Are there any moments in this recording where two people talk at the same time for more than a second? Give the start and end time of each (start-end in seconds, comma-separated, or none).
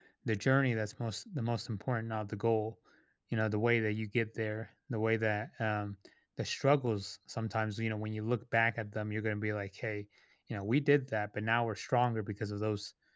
none